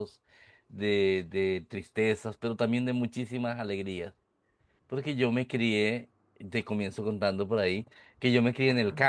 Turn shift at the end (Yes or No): No